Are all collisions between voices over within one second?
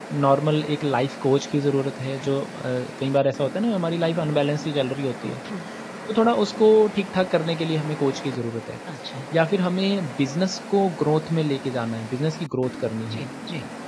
Yes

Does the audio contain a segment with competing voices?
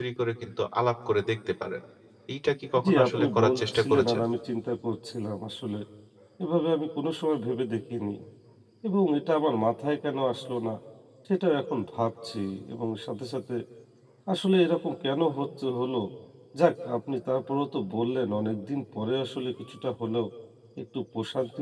Yes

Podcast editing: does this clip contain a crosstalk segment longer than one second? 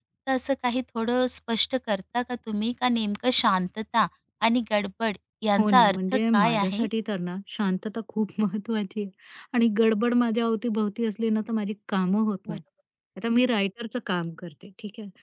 Yes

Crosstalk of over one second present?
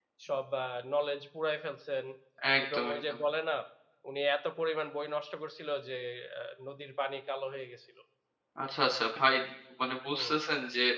No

